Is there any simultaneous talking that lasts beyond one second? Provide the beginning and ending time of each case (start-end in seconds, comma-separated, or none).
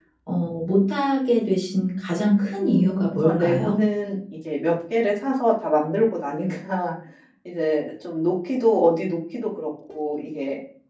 2.4-3.8